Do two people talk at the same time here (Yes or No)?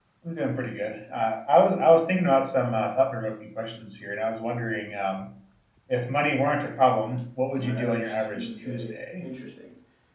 Yes